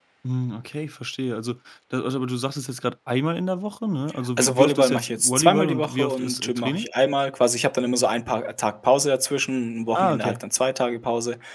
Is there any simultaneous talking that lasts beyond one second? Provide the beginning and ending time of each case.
4.4-6.9

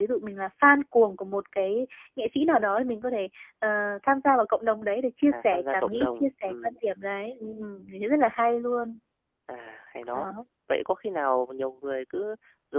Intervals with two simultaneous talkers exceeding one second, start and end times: 5.3-6.8

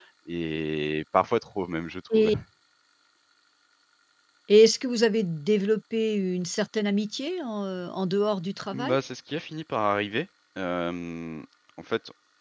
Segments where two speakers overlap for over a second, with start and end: none

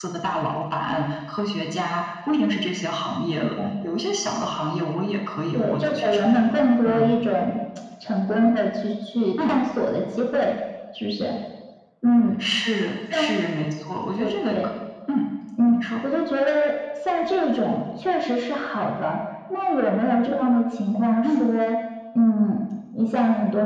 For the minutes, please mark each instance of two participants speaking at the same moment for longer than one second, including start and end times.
5.5-7.2

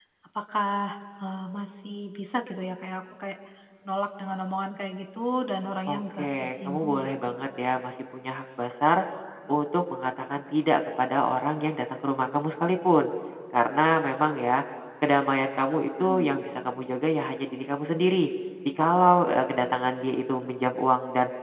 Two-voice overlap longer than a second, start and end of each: 5.9-7.3

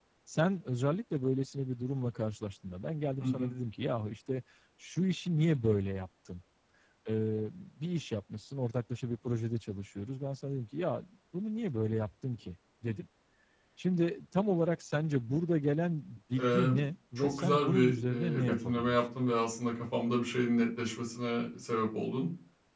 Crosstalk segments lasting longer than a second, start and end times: 17.1-19.0

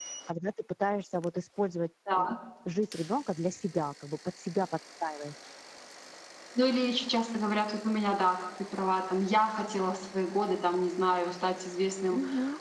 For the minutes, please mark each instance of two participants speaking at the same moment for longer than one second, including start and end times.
none

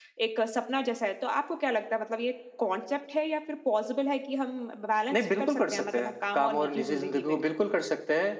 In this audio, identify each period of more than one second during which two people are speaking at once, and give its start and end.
5.1-7.4

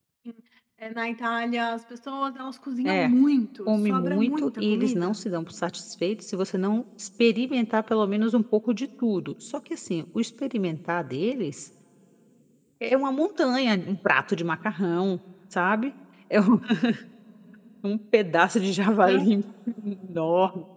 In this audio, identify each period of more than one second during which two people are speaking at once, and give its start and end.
3.7-5.1

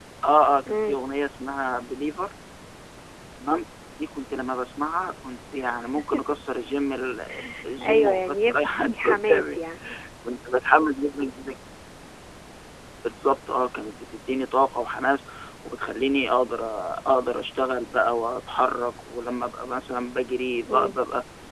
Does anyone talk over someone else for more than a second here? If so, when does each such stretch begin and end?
7.8-9.6

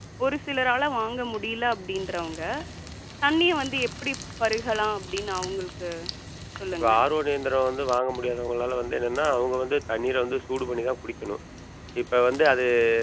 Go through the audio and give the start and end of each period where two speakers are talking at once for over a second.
none

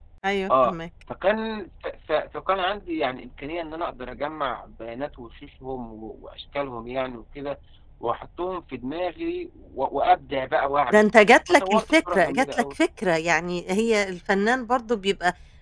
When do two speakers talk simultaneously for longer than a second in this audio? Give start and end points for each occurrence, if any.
11.5-12.8

